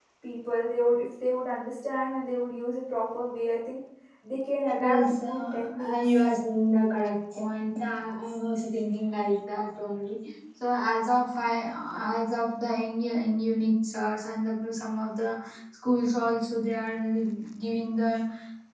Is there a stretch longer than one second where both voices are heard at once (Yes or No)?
Yes